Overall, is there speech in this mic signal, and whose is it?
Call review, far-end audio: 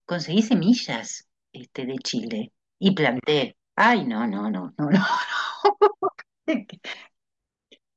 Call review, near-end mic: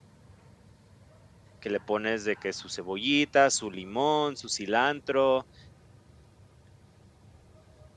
user only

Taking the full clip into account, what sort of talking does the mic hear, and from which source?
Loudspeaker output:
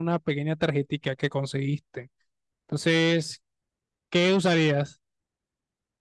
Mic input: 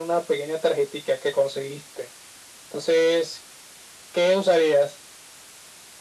echo only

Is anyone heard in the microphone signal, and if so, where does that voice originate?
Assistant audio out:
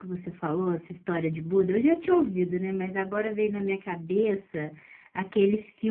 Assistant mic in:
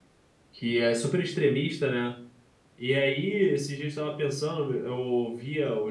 user only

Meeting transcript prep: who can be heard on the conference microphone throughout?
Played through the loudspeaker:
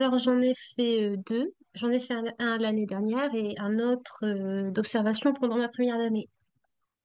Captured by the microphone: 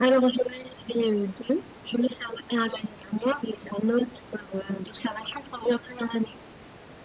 echo only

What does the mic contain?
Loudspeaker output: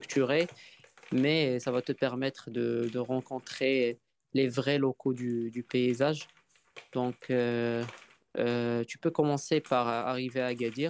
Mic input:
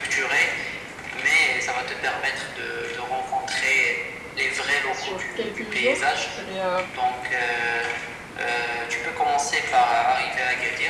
both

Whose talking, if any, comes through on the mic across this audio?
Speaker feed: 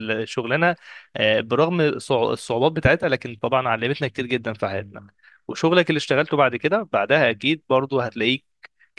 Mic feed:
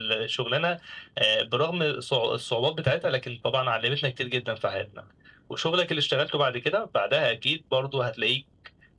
echo only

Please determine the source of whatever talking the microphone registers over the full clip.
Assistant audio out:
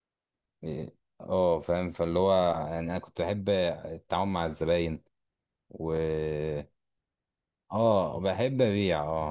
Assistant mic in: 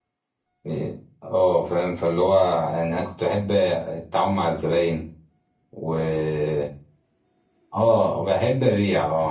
echo only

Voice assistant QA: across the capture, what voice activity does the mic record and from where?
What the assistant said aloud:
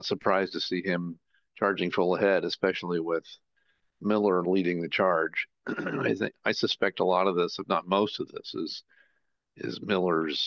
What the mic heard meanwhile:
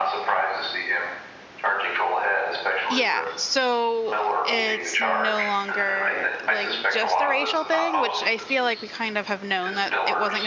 both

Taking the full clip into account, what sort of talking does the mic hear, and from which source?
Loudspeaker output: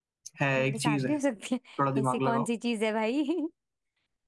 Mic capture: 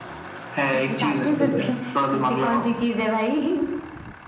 both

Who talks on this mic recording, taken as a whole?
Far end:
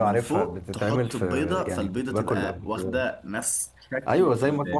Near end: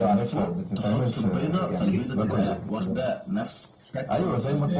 both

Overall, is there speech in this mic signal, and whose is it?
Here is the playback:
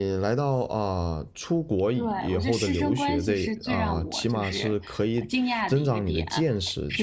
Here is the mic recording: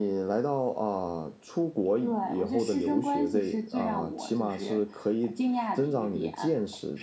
echo only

